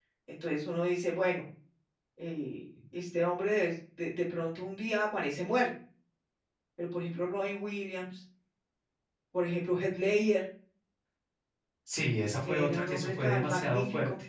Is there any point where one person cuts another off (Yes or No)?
Yes